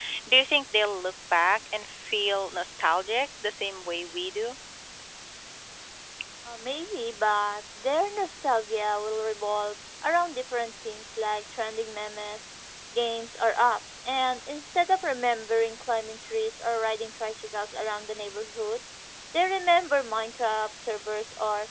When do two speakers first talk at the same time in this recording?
none

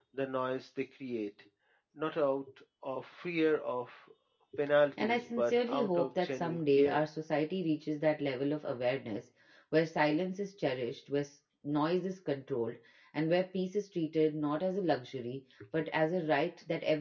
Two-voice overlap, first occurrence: 5.0 s

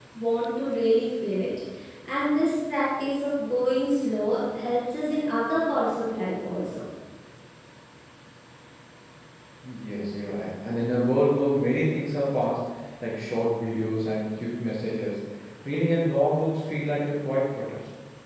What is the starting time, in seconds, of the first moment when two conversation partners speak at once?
none

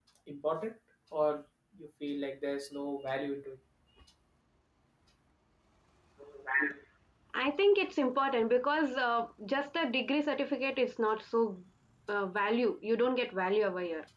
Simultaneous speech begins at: none

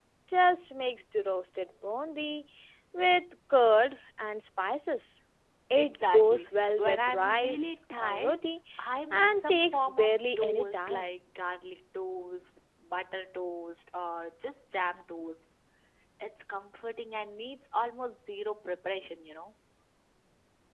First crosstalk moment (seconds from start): 5.8 s

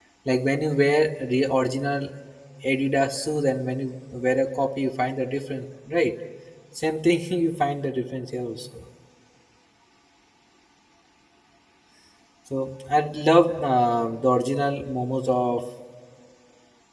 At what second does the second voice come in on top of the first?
none

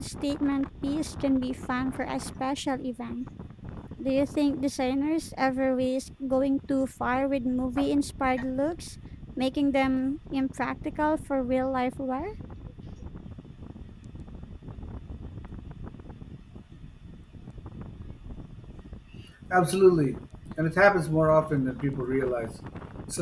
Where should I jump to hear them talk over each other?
none

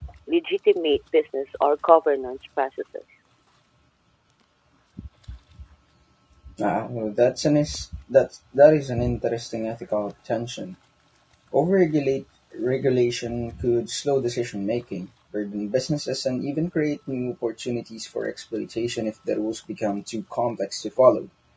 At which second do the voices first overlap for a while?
none

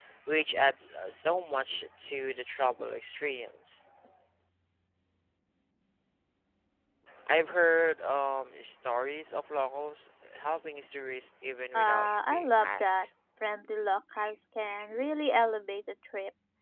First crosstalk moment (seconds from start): 11.7 s

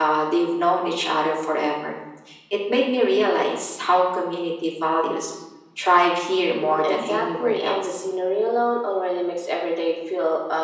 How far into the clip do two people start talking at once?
6.6 s

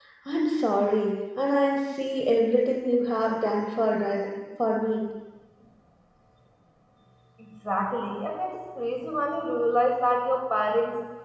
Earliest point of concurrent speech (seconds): none

